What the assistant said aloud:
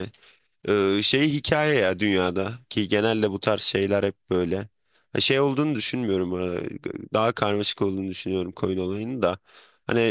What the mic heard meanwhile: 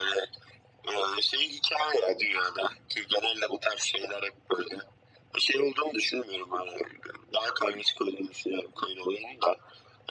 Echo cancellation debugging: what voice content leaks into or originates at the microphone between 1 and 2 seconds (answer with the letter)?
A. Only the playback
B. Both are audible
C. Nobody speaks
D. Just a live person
A